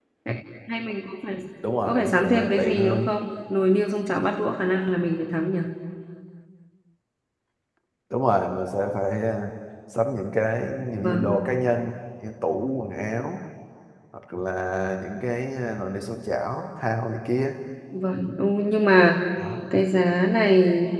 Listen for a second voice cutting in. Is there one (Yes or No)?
Yes